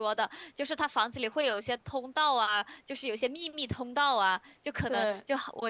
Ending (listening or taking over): listening